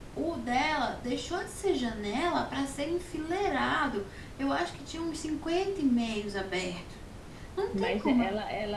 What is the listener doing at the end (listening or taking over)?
taking over